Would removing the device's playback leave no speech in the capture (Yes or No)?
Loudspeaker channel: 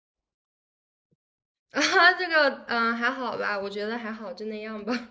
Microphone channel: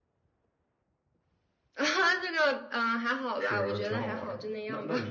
No